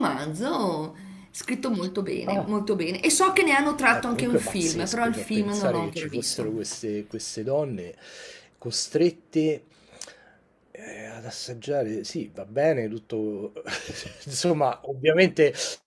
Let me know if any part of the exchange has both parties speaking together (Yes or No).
Yes